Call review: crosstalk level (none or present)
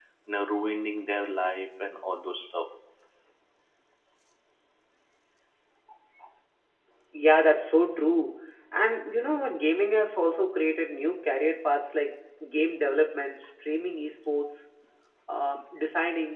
none